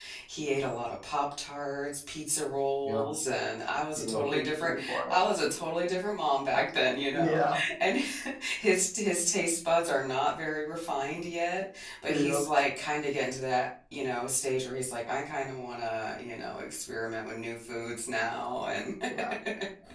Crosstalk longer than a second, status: present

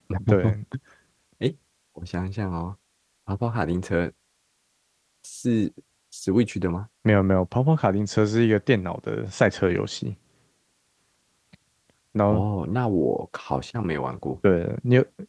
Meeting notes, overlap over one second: none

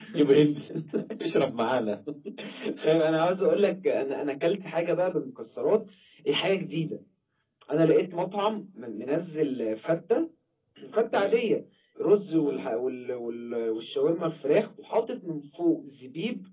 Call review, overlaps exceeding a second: none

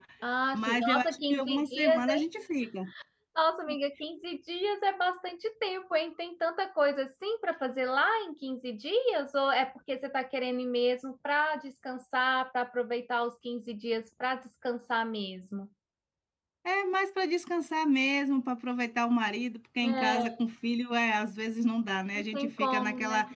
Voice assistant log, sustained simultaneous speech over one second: present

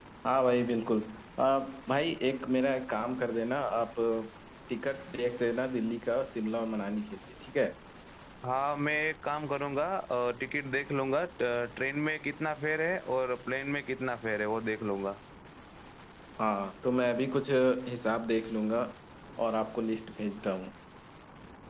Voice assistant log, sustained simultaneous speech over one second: none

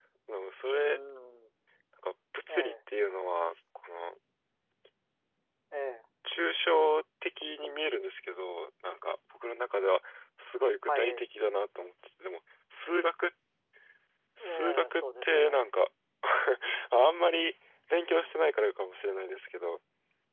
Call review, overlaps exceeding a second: present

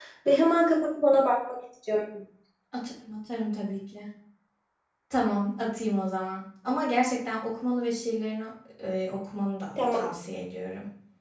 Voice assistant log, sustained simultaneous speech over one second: none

